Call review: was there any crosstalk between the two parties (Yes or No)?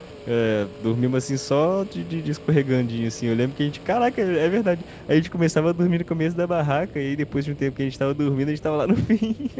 No